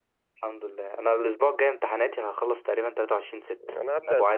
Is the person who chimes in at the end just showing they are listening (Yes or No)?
No